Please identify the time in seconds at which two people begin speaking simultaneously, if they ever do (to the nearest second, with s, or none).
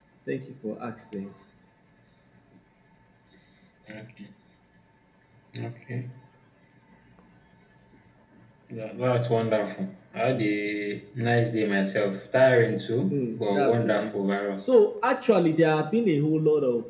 13 s